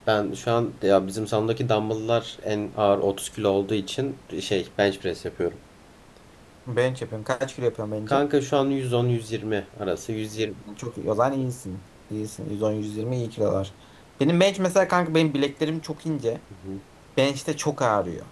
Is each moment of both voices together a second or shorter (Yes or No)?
Yes